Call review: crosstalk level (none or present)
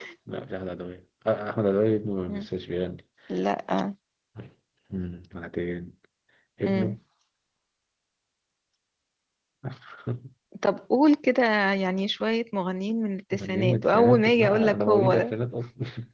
present